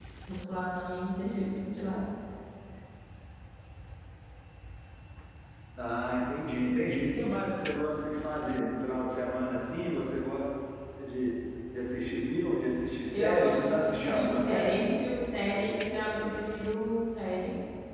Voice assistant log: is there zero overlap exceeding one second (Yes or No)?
No